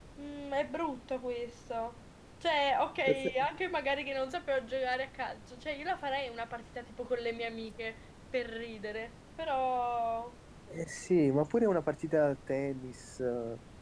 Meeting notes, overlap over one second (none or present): none